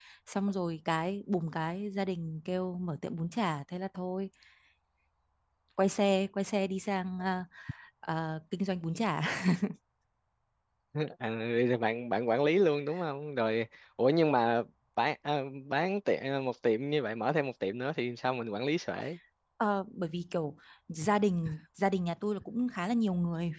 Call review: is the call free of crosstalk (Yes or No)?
Yes